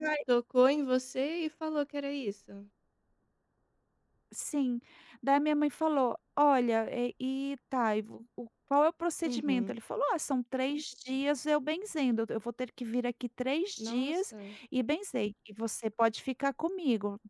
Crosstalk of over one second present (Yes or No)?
No